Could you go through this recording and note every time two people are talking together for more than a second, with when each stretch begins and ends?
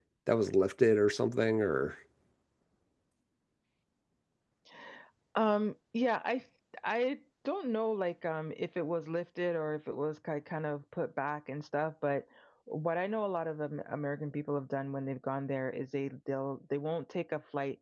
none

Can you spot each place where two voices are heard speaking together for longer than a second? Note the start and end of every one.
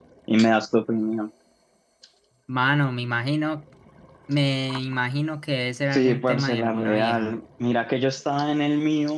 5.9-7.3

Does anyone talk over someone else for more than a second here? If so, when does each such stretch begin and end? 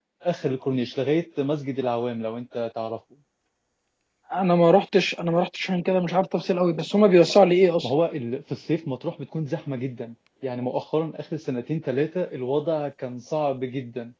none

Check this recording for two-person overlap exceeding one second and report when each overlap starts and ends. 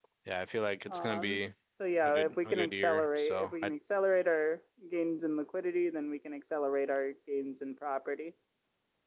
2.0-3.7

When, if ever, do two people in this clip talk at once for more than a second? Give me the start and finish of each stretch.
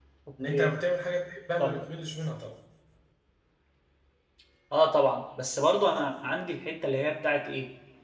none

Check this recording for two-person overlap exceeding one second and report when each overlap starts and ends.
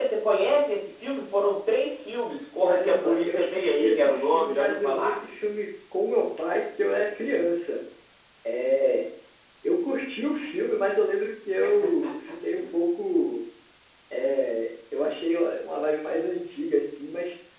2.6-5.2

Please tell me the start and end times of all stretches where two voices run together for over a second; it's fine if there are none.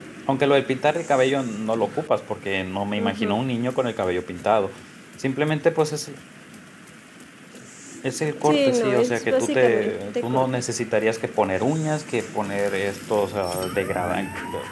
8.4-10.5

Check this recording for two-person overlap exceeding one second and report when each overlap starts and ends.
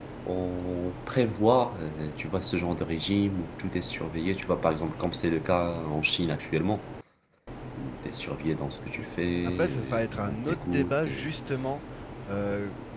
9.4-11.3

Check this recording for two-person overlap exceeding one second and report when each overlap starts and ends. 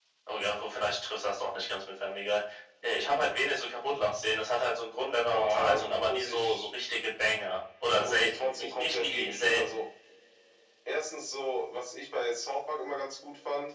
5.3-6.7, 7.9-9.8

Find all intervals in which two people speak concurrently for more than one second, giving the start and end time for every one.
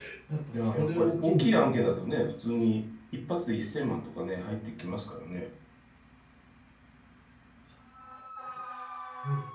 0.5-2.0

